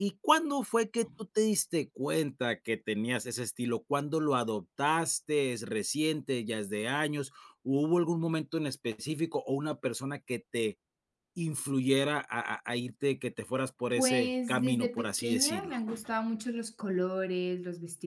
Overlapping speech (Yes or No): Yes